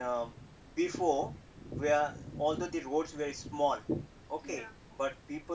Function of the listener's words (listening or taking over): listening